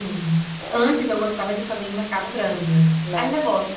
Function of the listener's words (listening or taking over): listening